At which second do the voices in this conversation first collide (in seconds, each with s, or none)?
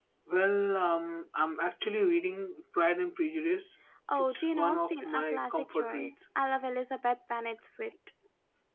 4.1 s